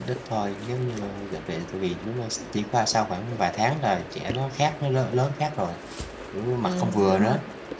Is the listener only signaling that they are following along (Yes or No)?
No